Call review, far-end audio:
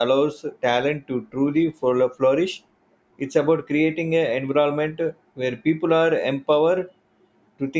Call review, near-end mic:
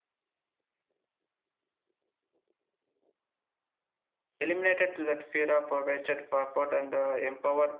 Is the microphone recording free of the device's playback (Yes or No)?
Yes